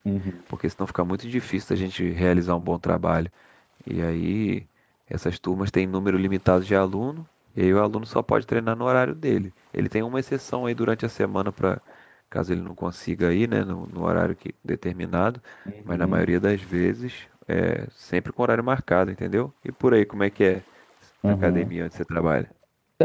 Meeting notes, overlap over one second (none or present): none